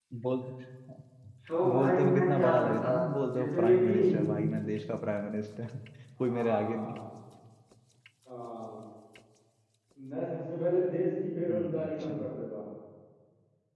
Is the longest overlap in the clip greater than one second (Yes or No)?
Yes